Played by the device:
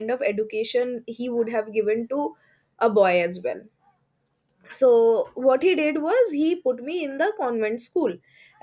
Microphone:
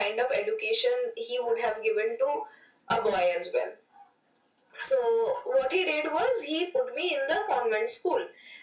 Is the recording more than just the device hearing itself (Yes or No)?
No